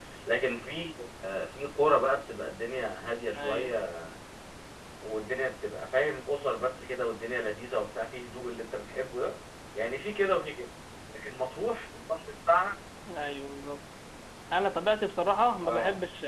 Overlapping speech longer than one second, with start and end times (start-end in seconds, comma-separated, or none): none